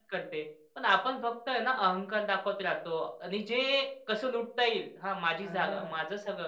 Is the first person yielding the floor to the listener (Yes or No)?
No